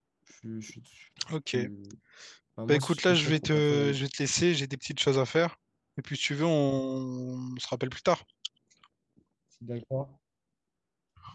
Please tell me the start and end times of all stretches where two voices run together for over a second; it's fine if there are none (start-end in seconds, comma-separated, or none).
2.7-4.0